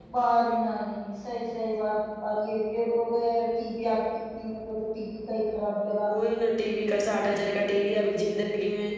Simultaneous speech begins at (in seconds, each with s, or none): none